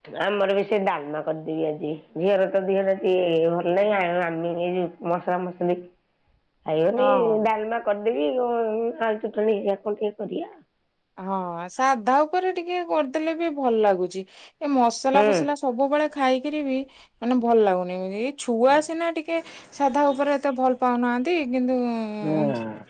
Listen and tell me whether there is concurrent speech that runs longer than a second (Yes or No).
No